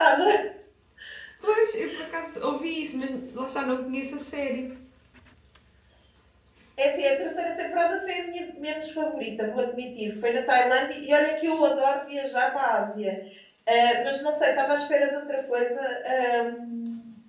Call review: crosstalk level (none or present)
none